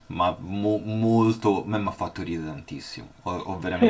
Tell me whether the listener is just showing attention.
Yes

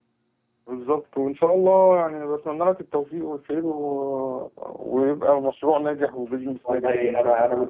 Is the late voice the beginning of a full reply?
Yes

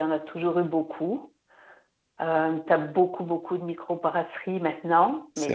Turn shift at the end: No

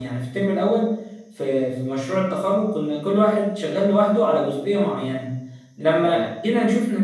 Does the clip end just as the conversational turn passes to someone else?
No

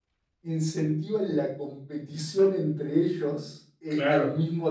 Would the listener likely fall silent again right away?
Yes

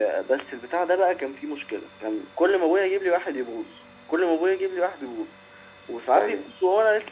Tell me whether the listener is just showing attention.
Yes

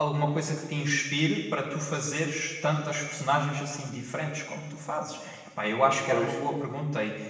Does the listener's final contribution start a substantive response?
No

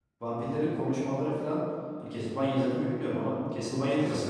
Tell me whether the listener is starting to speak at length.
No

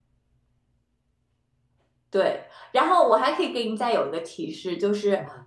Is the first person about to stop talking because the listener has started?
No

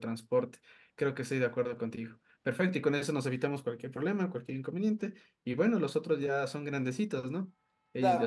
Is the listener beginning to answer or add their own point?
Yes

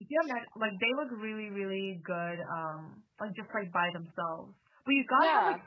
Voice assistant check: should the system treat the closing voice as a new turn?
No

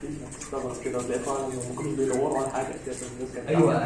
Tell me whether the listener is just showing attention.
No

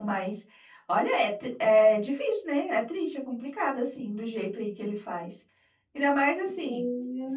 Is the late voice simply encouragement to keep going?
Yes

